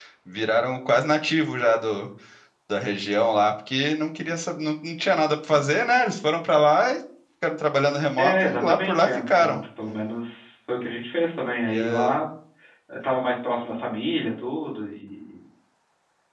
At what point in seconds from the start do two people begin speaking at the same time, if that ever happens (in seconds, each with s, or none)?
8.2 s